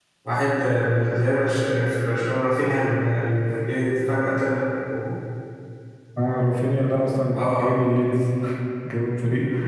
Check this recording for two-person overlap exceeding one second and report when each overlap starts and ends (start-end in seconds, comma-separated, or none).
none